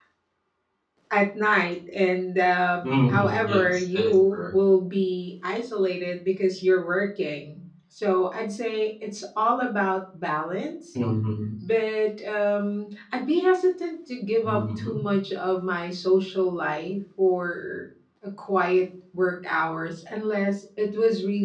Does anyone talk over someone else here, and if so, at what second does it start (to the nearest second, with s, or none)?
3 s